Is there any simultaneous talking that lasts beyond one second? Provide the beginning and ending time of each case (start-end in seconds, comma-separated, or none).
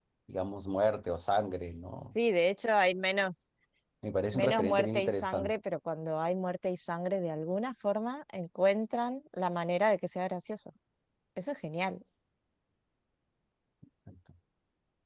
4.3-5.6